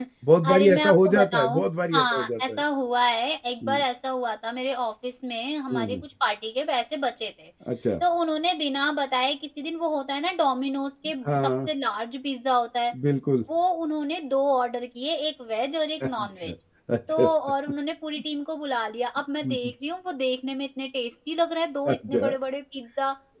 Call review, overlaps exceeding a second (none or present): present